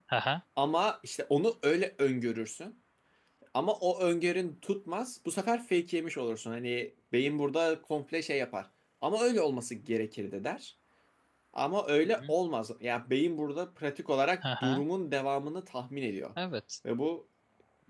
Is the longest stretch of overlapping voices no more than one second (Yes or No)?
Yes